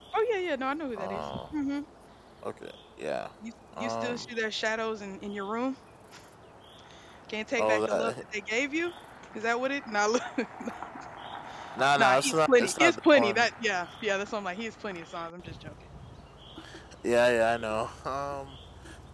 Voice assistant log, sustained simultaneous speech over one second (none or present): present